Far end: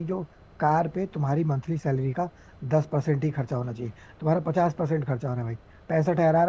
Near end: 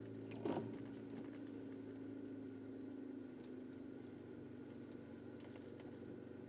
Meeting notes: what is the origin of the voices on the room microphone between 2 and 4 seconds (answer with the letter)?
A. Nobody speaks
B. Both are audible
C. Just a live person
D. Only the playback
A